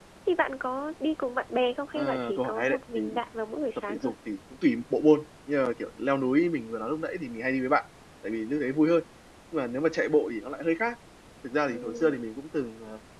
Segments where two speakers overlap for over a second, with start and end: 1.9-3.2

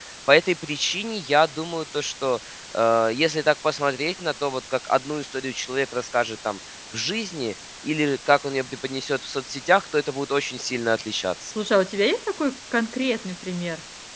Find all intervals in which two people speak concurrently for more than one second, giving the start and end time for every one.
none

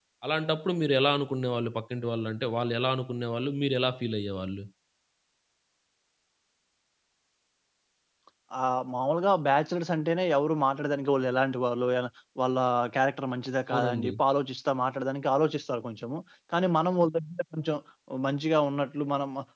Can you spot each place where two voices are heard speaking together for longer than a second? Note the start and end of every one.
none

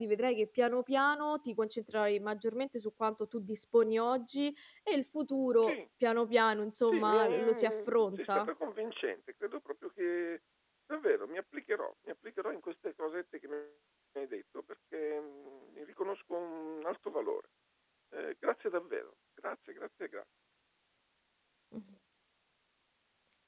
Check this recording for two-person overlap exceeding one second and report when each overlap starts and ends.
6.9-8.5

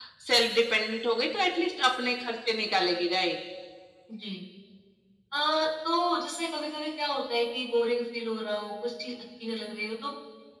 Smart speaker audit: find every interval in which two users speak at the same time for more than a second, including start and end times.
none

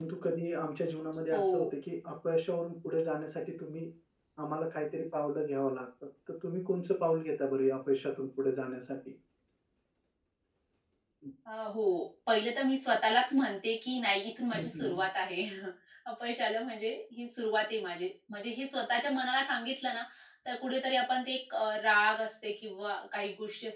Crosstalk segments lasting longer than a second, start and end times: none

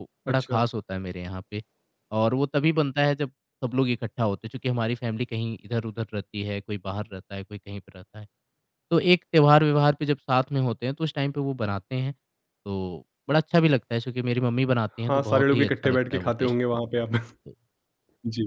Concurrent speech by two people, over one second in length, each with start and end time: 15.1-16.5

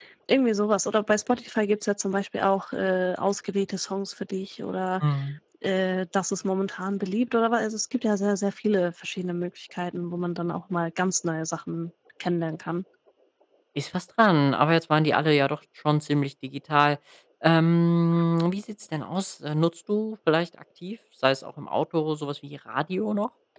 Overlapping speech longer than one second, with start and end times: none

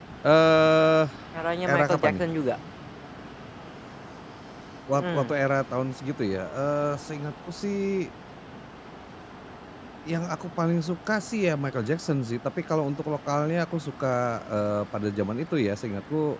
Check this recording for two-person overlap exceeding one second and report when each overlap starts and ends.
none

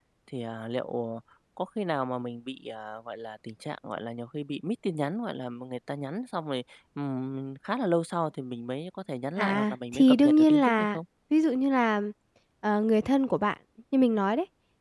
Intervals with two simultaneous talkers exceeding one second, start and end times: 9.4-11.0

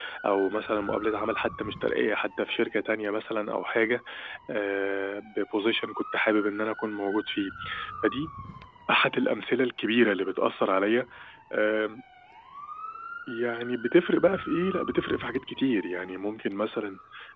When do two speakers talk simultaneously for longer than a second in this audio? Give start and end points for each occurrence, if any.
none

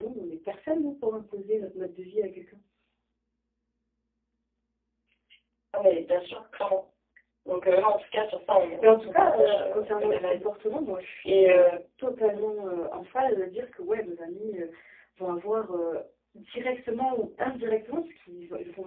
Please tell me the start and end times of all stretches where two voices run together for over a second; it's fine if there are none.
8.8-10.5

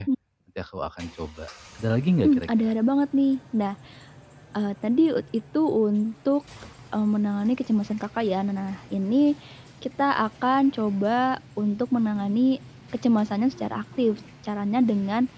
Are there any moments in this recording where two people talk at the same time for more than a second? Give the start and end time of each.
none

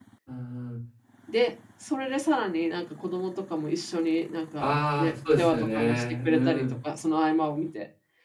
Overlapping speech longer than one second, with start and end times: 4.6-6.7

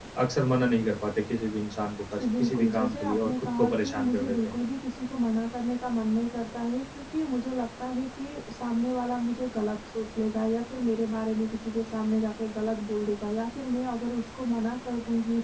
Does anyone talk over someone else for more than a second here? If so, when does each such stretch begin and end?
2.1-4.6

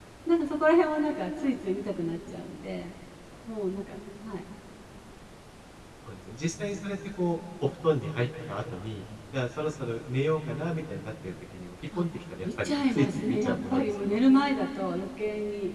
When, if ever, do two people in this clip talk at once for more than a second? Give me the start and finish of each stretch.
12.4-14.2

